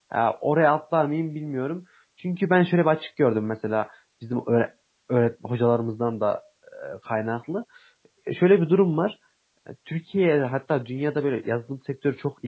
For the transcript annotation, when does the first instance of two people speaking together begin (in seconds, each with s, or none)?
none